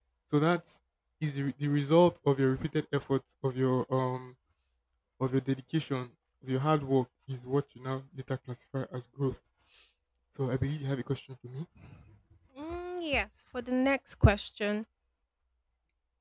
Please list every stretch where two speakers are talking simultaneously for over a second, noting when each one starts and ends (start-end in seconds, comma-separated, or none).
none